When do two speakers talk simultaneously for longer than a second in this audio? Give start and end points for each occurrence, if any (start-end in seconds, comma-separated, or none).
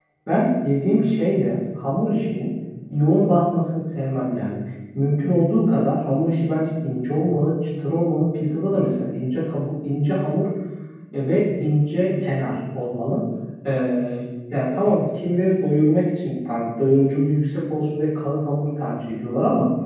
none